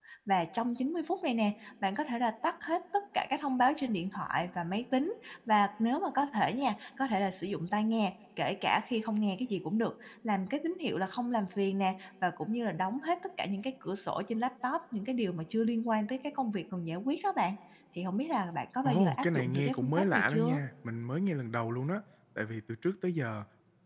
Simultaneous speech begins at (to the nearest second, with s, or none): 19 s